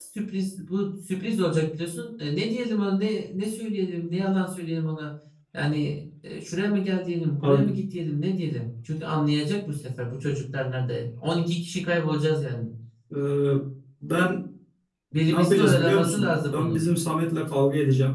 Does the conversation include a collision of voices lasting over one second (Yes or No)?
Yes